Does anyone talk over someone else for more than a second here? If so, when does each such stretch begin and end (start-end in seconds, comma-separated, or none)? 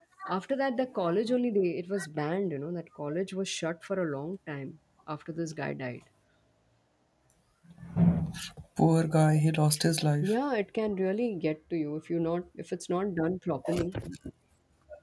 none